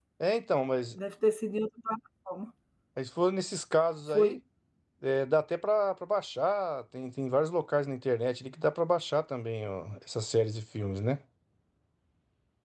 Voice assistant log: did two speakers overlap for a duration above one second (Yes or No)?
No